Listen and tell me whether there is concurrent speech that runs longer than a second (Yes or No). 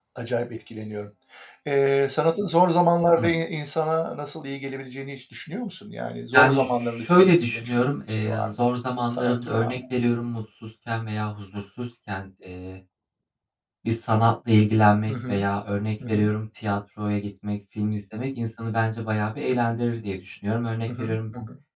Yes